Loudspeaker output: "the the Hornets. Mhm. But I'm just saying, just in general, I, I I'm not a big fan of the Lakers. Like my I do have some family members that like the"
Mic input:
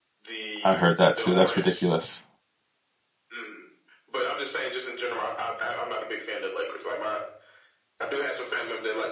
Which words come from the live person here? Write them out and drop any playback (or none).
I heard that too. That's ridiculous.